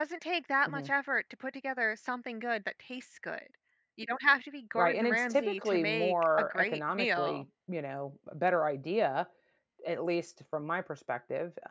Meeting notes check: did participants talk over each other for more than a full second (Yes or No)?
Yes